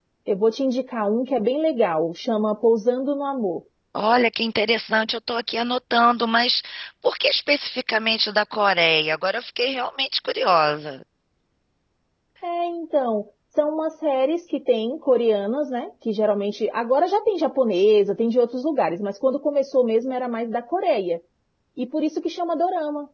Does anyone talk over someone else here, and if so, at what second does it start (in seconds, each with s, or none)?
none